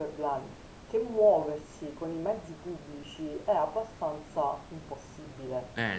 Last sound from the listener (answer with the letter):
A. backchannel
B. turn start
A